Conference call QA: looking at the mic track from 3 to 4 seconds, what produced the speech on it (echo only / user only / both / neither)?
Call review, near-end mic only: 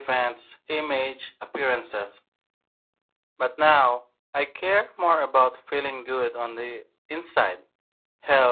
echo only